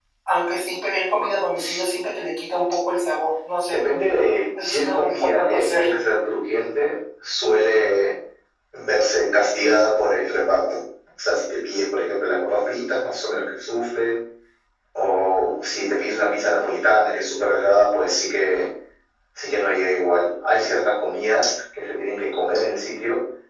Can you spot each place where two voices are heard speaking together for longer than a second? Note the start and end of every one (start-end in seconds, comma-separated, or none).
4.6-6.0